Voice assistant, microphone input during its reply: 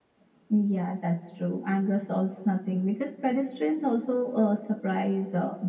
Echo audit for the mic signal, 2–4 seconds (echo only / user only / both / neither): echo only